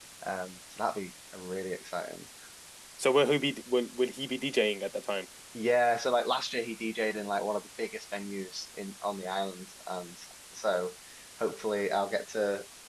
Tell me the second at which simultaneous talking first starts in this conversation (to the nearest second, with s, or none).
none